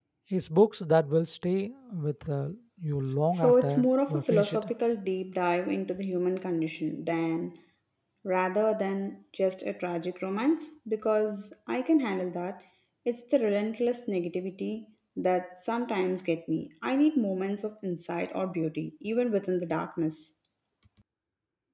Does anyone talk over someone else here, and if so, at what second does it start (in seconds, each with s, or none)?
3.3 s